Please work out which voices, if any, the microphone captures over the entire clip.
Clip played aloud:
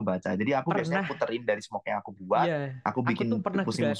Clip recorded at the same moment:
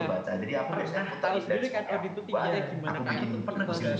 both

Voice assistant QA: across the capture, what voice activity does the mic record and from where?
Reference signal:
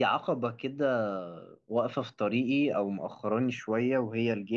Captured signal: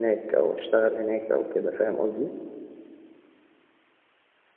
user only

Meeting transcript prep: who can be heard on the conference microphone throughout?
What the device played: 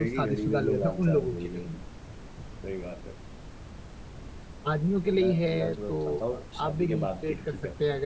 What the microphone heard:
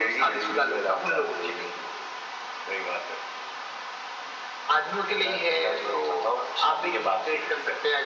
echo only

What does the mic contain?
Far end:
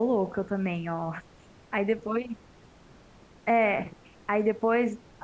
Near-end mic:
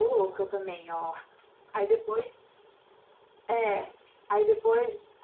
echo only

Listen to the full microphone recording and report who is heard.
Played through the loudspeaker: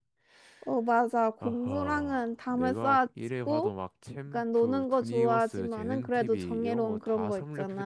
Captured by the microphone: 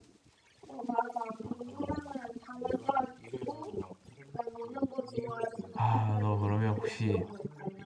both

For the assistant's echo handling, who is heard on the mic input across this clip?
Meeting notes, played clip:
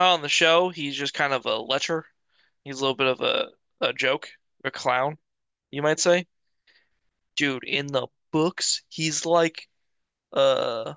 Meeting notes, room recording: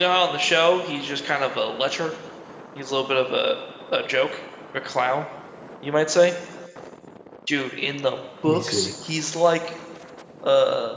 both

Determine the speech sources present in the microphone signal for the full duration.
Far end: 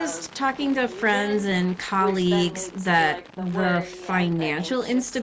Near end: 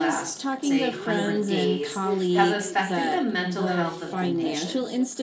both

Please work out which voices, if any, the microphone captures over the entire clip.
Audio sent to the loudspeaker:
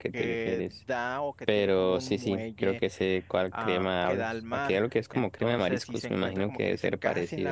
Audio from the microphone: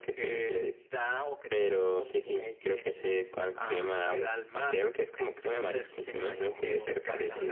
both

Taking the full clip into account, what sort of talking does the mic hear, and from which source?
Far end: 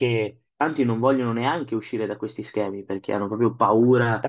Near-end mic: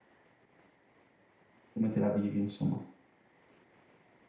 user only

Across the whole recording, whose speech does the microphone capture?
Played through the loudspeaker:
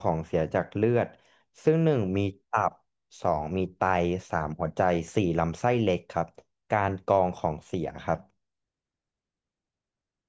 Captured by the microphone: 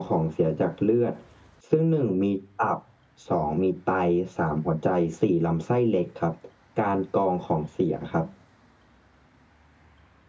echo only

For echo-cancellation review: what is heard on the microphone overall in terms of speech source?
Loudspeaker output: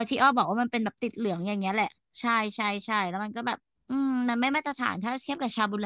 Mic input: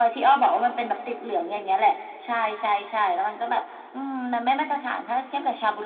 echo only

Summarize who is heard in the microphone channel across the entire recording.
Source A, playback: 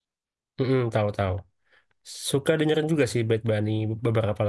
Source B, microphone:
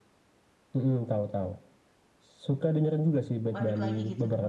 both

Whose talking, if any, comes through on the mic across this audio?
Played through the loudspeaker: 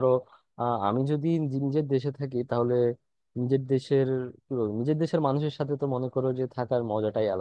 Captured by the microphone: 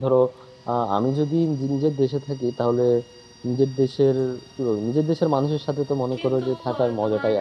both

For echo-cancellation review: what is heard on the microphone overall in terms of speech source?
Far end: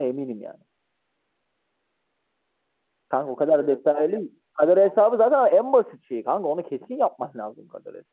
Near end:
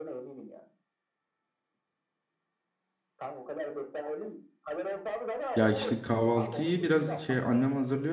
both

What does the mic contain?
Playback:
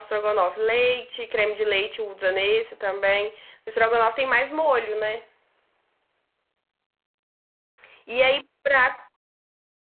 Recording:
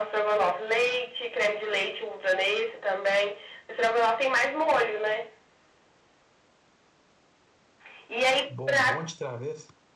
both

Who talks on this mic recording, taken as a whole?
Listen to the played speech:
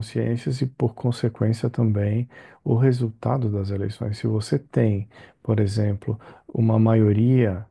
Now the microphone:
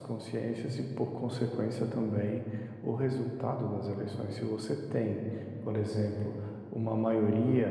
echo only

